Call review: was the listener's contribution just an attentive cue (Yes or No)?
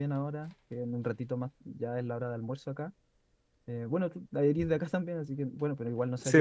Yes